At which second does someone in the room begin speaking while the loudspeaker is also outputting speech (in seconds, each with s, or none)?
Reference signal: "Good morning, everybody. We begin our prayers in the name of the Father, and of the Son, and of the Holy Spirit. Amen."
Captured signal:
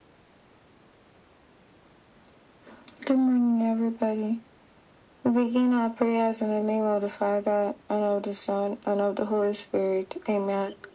none